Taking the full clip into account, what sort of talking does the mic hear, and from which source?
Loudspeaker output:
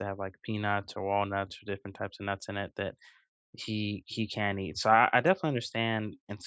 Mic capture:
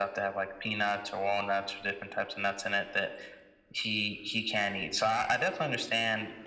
echo only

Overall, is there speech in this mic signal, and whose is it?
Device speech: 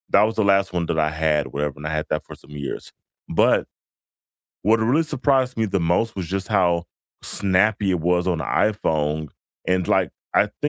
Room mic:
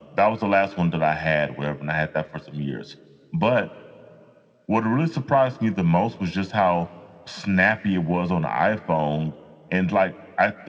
echo only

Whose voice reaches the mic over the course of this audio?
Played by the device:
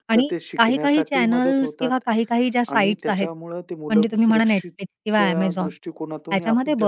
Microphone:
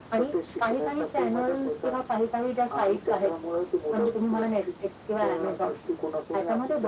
echo only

